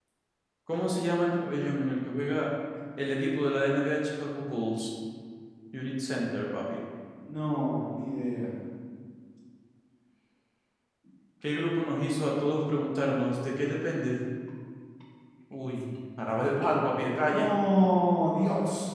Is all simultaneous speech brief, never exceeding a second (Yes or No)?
Yes